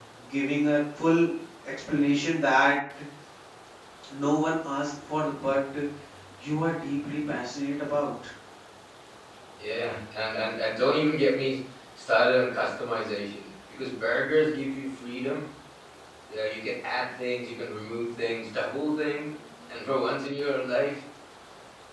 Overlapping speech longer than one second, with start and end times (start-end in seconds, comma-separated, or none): none